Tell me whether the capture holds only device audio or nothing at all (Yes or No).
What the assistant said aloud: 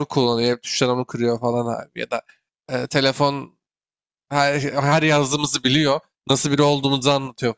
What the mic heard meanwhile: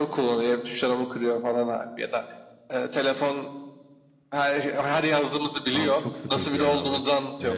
No